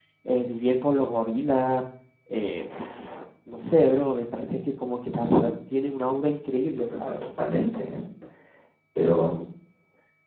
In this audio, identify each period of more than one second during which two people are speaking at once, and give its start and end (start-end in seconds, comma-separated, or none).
none